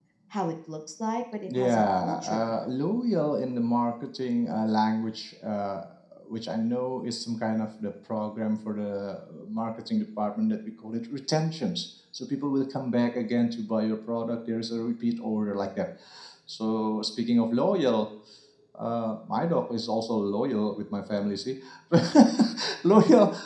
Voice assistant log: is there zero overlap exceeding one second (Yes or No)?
No